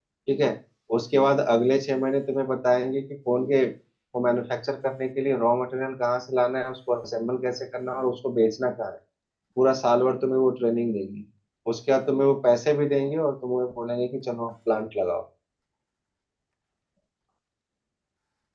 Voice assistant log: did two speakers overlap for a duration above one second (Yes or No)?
No